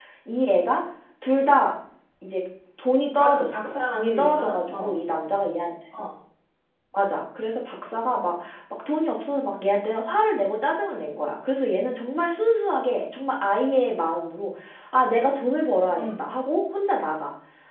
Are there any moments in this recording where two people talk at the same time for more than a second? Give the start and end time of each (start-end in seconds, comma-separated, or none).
3.2-5.0